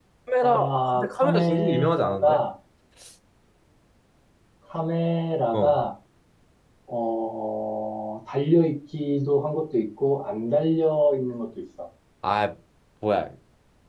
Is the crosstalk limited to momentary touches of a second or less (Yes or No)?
No